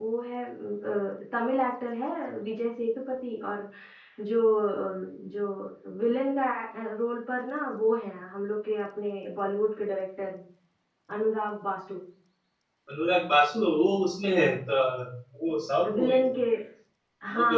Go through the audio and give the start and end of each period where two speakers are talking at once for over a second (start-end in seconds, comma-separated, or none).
none